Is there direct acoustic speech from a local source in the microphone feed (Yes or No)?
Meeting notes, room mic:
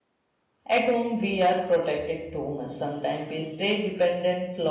Yes